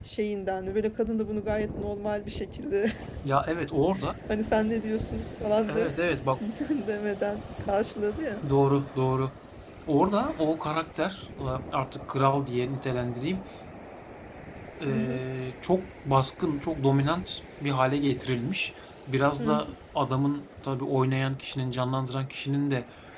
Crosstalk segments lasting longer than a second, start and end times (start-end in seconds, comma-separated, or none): none